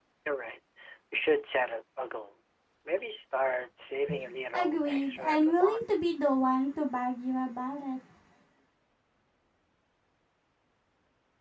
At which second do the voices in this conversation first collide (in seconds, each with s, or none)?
4.5 s